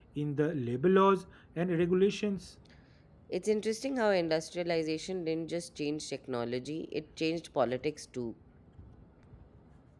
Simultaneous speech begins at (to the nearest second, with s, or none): none